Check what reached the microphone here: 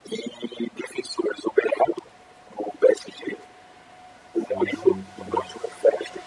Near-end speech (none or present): present